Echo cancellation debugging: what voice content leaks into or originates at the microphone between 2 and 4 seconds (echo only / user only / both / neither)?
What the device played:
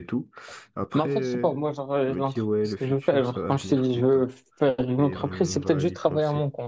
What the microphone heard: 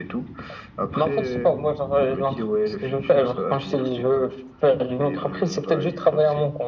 echo only